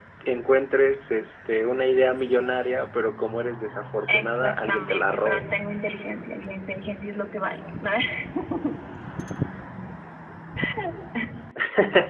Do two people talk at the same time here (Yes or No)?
Yes